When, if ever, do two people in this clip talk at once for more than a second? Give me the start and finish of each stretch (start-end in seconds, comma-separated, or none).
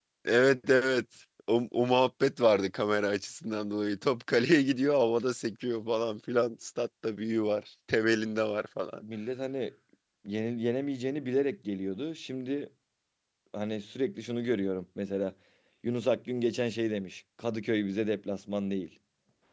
none